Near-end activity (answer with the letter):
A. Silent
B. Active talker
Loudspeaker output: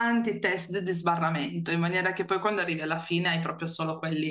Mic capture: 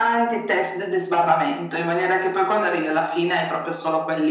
A